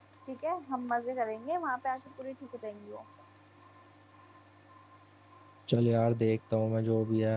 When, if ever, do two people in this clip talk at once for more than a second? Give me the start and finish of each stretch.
none

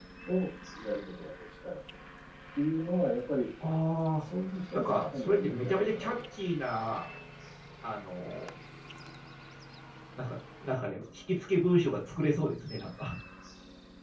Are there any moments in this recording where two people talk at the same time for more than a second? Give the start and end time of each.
4.7-6.1

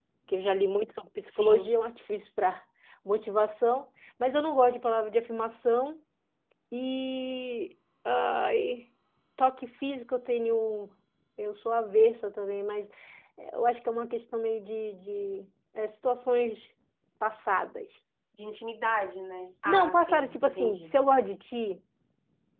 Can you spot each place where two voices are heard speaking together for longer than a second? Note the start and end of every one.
19.6-21.0

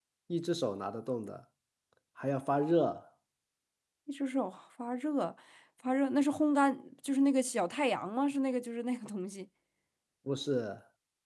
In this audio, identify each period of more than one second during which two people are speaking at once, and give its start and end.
none

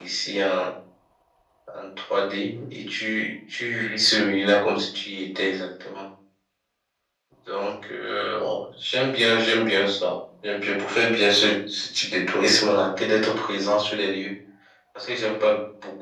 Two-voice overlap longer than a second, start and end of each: none

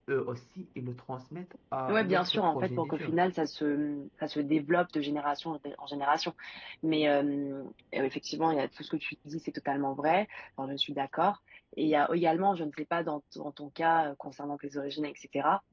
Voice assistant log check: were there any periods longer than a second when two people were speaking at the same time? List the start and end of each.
1.9-3.2

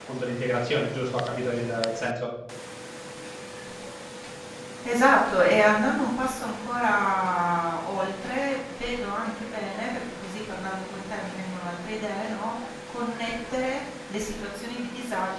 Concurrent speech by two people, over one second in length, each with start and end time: none

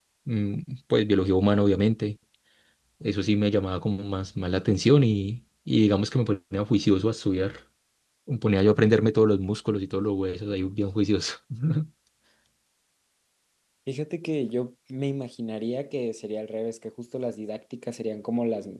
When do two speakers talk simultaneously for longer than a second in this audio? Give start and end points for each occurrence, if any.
none

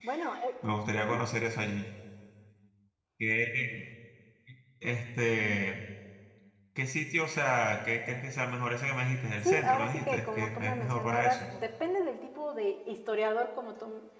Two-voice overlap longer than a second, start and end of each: 9.4-11.4

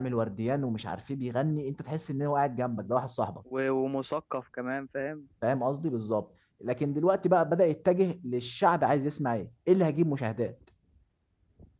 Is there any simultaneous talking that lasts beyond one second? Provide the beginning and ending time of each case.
none

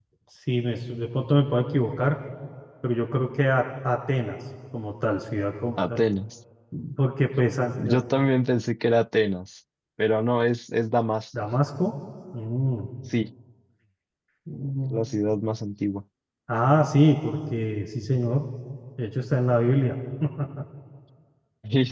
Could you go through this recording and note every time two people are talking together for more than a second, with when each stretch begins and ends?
none

